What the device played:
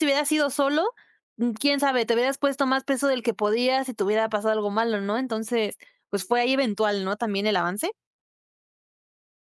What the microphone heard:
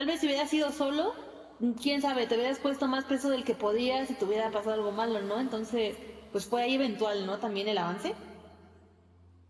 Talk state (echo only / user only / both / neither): echo only